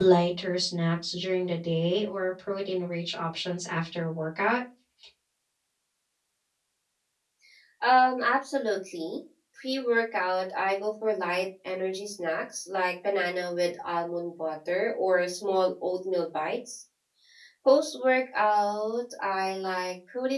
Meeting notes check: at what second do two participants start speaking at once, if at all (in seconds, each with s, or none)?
none